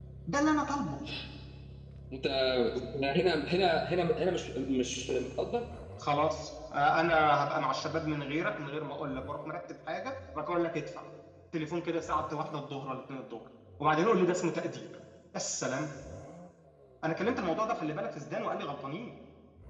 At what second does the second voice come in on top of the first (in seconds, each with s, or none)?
none